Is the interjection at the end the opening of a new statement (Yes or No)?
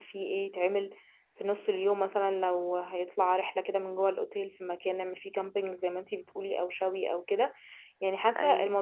No